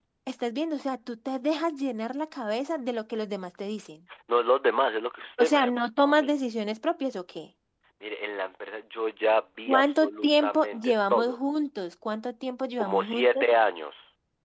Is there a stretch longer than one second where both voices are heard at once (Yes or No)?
Yes